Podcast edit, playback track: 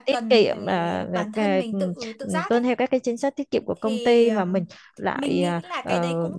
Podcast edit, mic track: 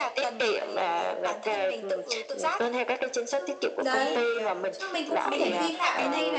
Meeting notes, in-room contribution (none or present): present